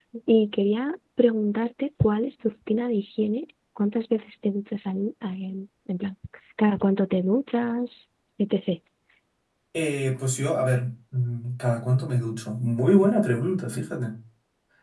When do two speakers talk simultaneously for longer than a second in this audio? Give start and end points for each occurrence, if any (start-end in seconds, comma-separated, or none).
none